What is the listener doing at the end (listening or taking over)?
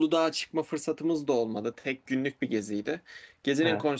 listening